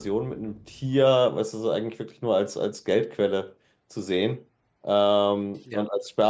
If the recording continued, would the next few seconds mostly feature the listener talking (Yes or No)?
No